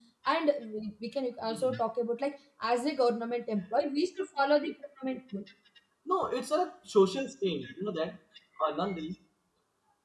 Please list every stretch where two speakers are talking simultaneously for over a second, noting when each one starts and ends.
none

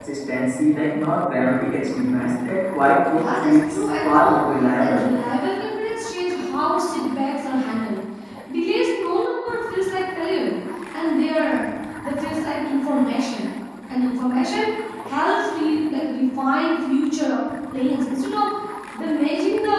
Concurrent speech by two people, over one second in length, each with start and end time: 3.1-4.4

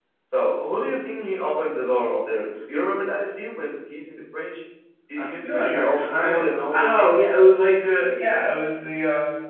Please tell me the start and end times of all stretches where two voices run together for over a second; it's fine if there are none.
5.2-7.2

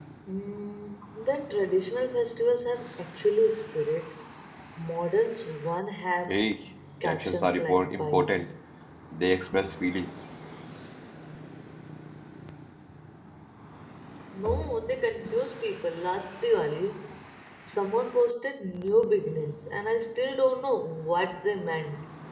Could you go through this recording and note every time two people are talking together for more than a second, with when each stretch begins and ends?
7.0-8.5

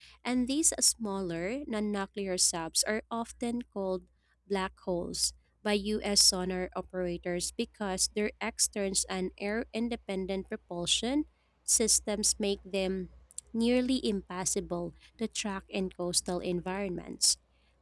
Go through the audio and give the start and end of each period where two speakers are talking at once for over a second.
none

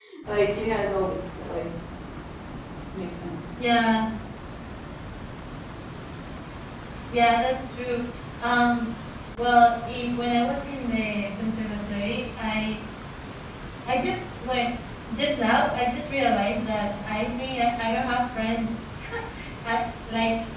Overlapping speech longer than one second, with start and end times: none

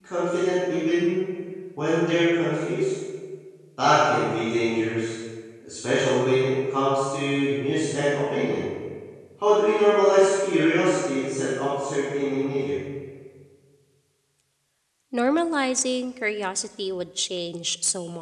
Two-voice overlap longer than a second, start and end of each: none

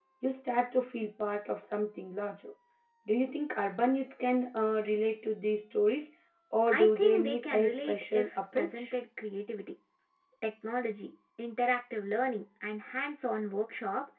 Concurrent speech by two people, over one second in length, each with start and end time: 6.7-8.8

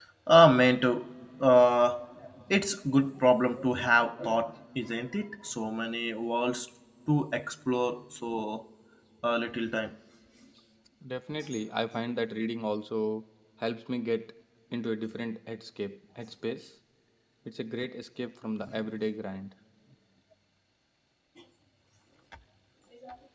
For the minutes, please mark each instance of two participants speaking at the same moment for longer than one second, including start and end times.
none

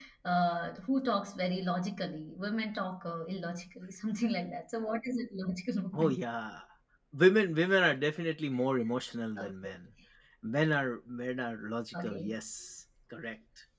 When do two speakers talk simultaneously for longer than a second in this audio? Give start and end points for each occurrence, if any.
none

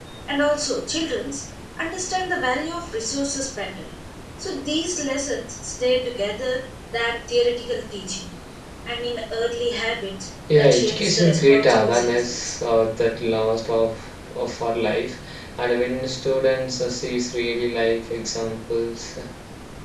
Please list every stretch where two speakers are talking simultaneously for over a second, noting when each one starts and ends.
10.6-12.6

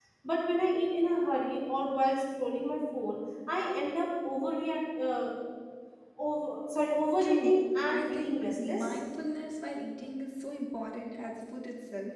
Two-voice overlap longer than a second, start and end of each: 7.2-9.0

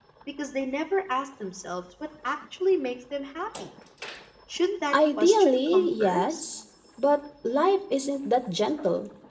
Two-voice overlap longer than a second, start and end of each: 4.9-6.4

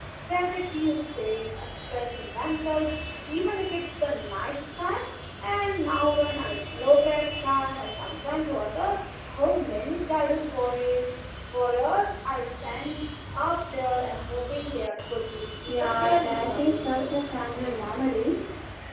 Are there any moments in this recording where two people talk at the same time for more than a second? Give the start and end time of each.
15.7-17.1

